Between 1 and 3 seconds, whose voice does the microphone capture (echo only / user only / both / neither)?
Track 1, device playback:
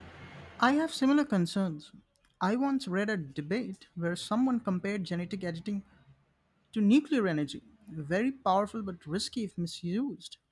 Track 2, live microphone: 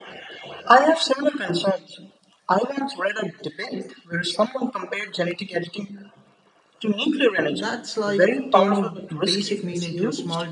echo only